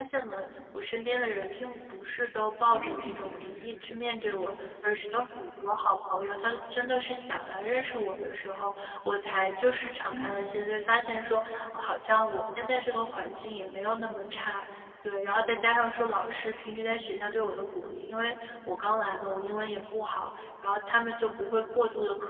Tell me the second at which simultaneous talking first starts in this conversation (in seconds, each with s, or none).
2.7 s